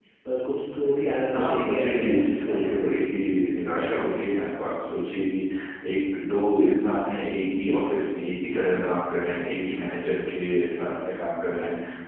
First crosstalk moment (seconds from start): 1.3 s

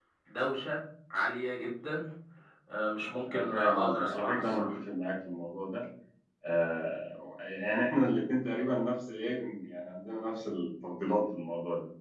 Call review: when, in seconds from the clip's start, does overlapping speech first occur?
3.3 s

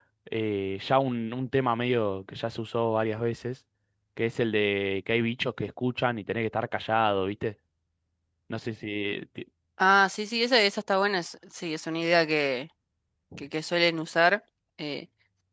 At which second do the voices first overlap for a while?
none

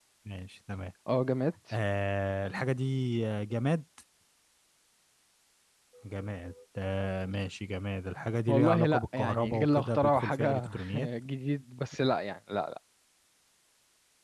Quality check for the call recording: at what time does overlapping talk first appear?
8.5 s

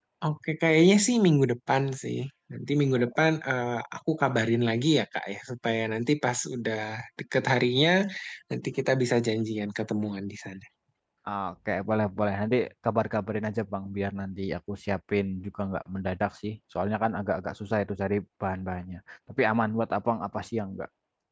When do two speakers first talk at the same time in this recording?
none

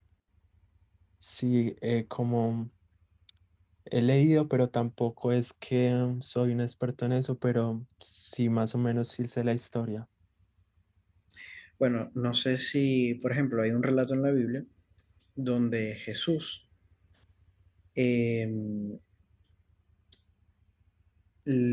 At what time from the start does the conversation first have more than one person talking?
none

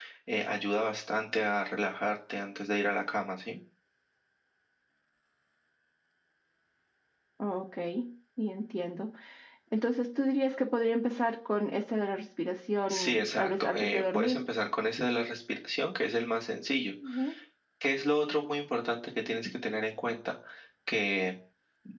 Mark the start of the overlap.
12.9 s

